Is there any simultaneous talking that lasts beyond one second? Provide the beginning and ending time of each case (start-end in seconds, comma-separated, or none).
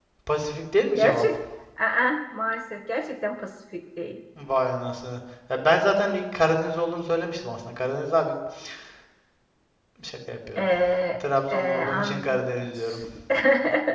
11.2-12.4